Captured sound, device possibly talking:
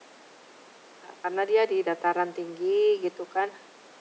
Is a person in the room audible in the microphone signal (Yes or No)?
Yes